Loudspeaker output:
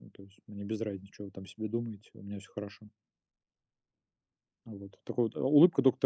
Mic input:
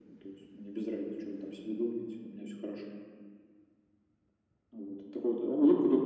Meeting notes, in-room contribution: none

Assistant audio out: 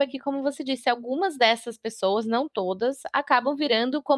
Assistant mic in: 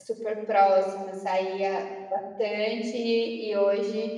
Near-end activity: present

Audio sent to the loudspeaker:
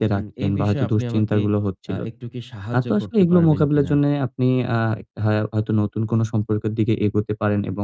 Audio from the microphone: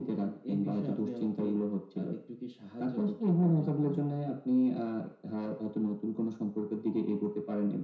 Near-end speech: none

